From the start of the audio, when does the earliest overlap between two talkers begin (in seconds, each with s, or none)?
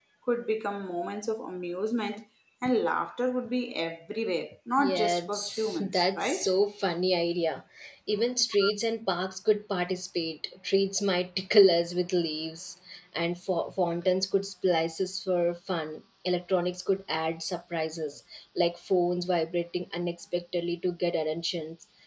4.8 s